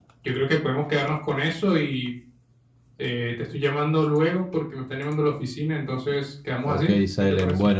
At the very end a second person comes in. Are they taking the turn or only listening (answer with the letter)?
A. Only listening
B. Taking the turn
B